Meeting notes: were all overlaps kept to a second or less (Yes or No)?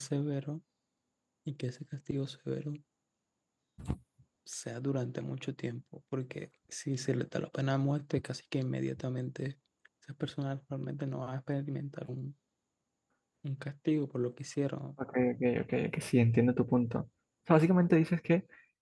Yes